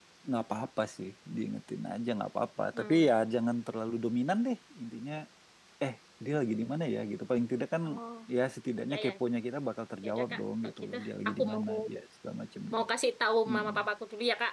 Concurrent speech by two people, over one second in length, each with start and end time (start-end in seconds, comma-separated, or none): 10.0-11.6